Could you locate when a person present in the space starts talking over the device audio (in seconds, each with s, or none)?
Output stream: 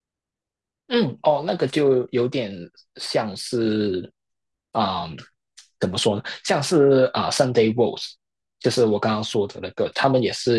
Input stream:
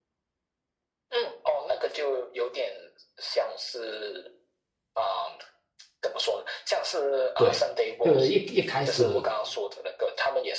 7.4 s